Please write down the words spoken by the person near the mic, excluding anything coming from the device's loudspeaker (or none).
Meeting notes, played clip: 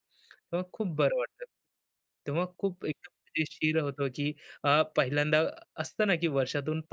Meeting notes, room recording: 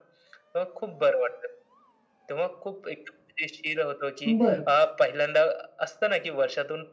बरं.